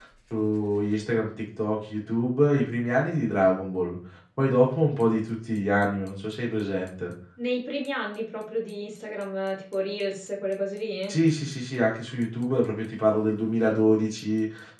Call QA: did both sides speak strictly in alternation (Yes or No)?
Yes